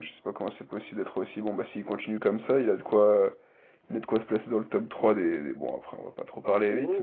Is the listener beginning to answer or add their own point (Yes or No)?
Yes